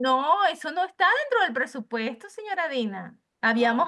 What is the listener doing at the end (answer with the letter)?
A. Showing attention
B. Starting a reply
A